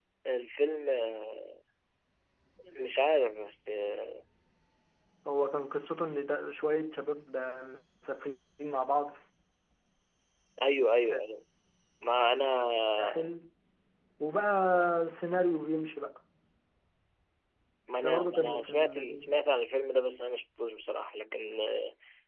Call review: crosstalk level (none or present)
present